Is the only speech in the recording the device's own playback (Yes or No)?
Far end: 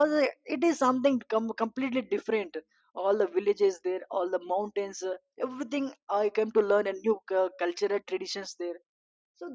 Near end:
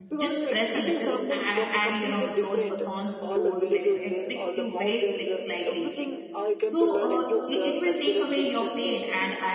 No